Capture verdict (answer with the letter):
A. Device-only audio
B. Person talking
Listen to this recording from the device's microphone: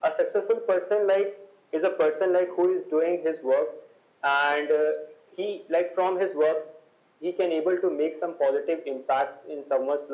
A